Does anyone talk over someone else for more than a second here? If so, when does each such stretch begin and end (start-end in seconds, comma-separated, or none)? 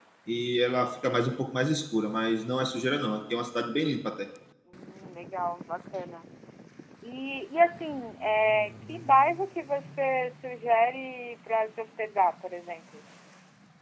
none